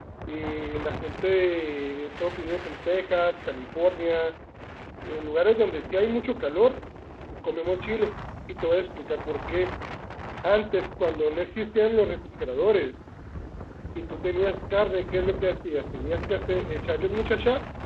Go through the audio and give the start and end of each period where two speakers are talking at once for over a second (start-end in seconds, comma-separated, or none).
none